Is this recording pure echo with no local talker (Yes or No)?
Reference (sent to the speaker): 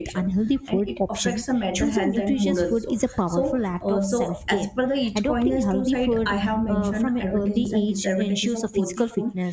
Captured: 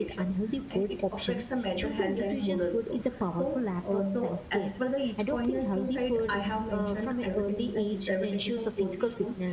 Yes